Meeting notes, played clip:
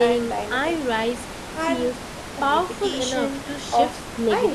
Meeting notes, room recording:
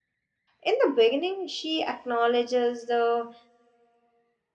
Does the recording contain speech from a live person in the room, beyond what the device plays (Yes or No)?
Yes